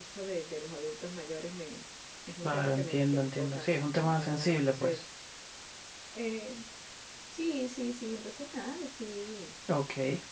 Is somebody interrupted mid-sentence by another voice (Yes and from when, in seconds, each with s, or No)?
Yes, from 2.4 s